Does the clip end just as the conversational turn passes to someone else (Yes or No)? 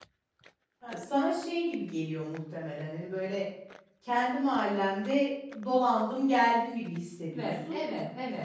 Yes